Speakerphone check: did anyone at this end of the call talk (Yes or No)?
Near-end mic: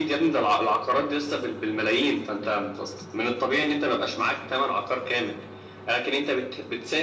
No